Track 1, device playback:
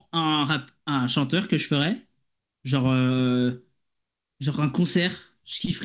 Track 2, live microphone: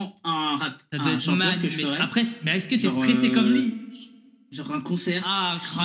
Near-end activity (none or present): present